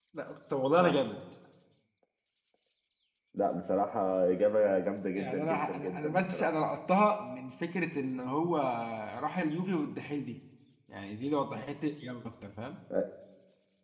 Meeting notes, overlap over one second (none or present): present